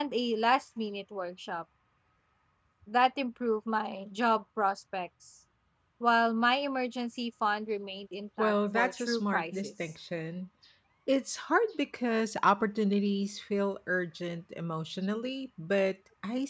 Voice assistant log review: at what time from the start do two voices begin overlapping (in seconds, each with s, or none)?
8.4 s